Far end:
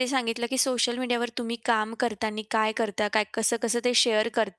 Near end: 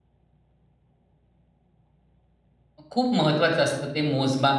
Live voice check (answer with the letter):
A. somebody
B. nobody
A